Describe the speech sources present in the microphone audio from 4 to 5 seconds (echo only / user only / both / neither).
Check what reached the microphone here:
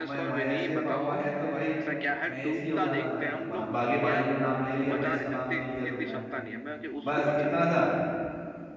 both